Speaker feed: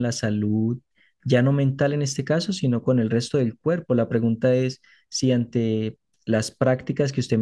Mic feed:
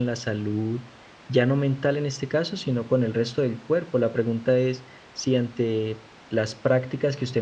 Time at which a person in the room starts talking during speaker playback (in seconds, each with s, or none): none